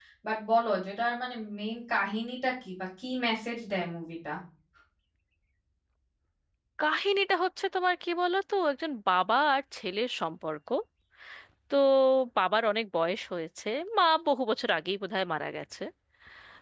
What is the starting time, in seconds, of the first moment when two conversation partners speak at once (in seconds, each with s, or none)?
none